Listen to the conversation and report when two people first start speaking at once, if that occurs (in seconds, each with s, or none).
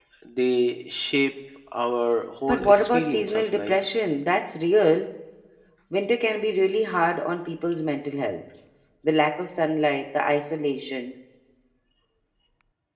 2.5 s